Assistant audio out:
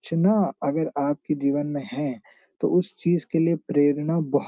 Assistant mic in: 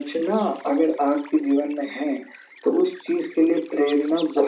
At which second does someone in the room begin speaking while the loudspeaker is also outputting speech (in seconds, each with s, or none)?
none